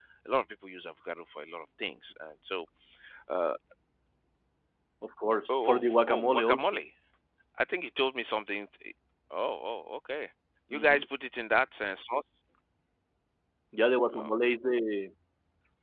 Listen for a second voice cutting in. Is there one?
Yes, from 5.5 s

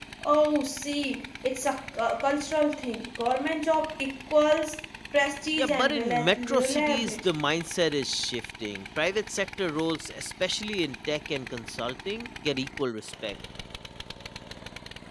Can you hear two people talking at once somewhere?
Yes, from 5.6 s

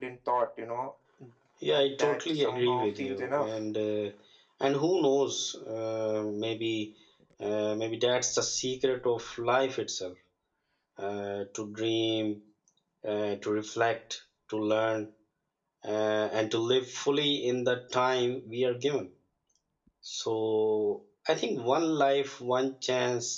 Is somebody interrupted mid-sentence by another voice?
Yes, from 1.6 s

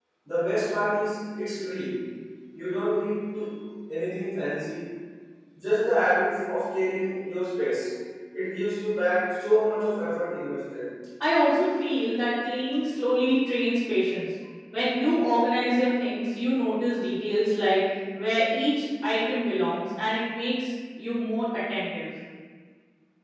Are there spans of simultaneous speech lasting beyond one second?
No

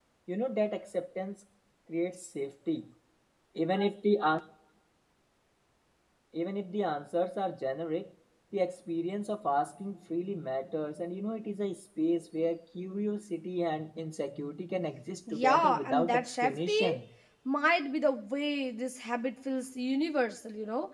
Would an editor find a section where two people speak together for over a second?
Yes, from 15.3 s

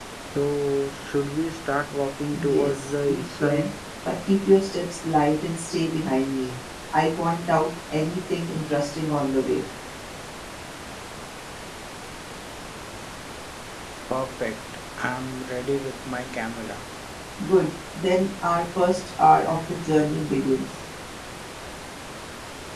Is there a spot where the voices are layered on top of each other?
Yes, from 2.3 s

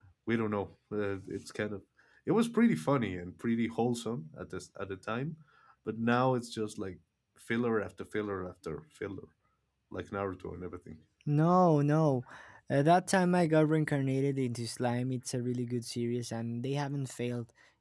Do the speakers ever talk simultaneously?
No

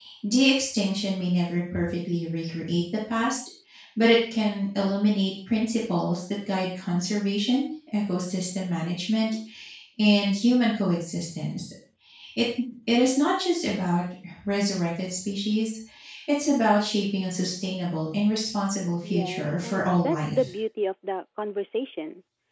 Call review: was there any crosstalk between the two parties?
Yes, from 19.0 s

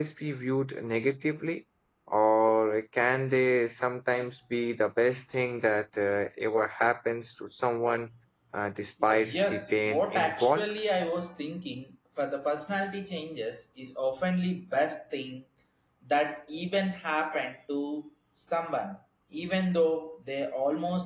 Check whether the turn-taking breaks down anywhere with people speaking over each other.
Yes, from 9.0 s

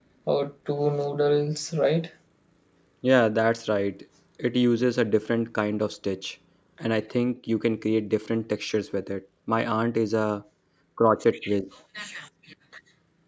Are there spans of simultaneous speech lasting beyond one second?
No

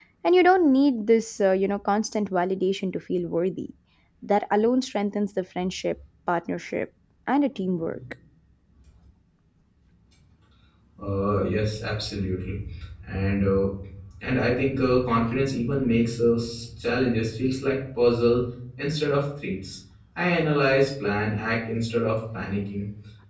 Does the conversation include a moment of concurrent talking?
No

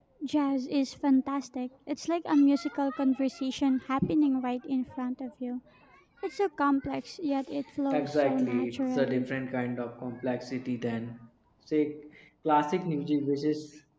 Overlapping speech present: Yes, from 7.9 s

